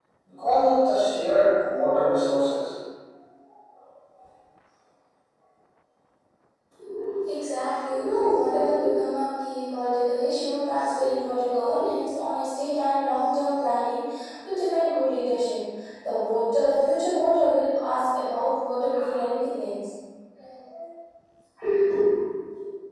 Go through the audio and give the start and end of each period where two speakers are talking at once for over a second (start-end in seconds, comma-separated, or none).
none